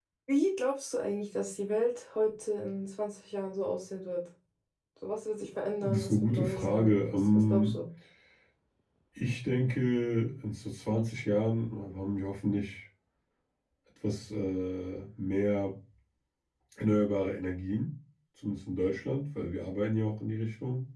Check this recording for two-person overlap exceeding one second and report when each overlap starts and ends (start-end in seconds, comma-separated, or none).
5.8-7.8